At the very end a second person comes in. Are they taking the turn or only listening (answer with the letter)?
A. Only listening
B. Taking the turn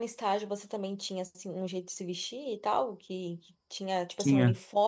A